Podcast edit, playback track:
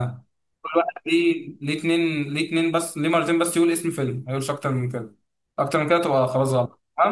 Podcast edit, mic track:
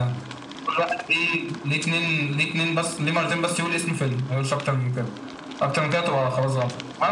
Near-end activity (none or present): none